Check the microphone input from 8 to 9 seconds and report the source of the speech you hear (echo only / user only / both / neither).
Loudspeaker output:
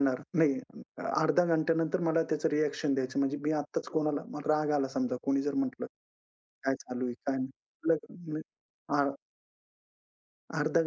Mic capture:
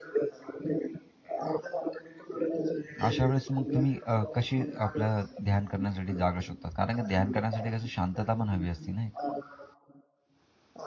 both